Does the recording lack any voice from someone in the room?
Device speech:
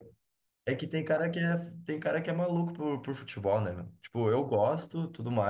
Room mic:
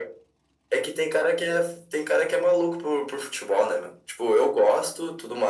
Yes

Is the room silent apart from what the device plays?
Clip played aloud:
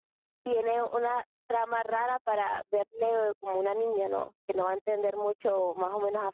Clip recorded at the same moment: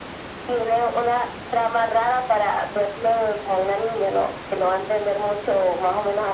Yes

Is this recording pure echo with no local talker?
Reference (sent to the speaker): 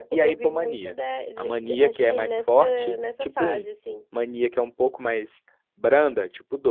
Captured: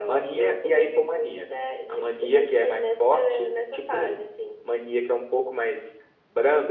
Yes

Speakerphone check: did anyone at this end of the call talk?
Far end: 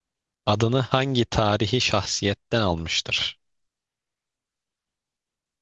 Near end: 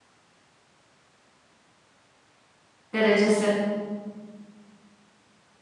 Yes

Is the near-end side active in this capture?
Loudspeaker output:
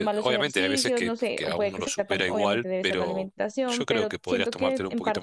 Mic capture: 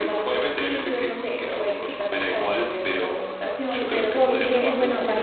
Yes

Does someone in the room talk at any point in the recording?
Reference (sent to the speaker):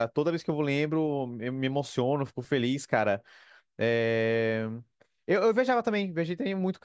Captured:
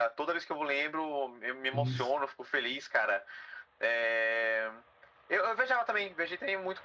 Yes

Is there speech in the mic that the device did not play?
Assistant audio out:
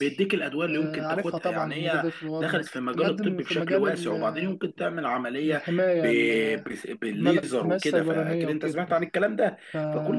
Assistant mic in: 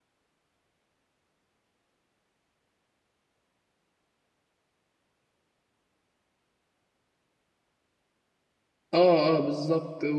Yes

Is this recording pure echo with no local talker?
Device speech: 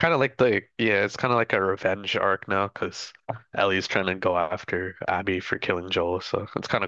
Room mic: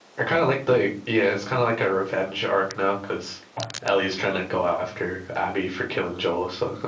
Yes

